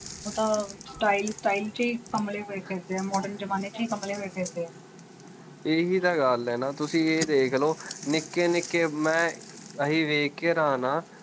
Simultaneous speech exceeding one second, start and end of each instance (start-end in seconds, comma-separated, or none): none